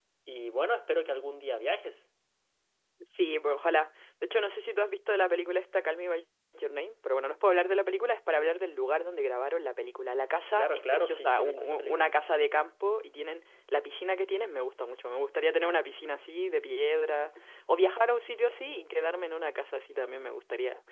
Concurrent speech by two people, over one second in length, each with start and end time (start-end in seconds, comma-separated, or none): 10.5-12.1